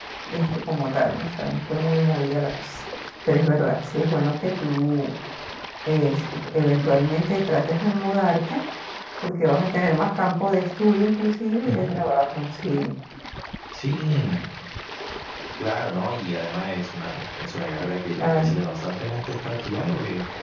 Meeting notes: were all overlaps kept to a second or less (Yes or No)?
Yes